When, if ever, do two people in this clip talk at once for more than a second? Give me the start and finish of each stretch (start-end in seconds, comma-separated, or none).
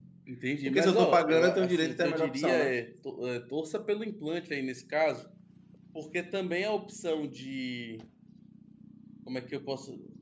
0.7-2.8